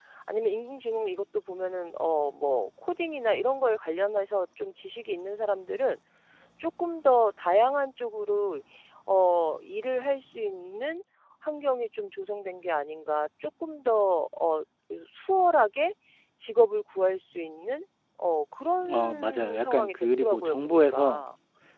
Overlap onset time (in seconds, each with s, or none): 18.8 s